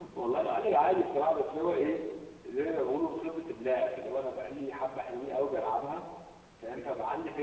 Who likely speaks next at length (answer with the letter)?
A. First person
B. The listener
A